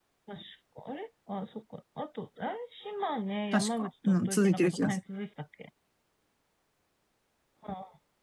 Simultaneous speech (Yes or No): Yes